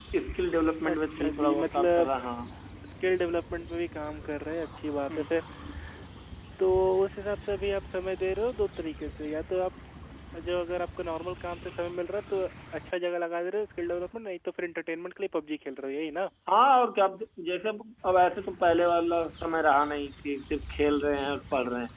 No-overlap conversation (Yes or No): No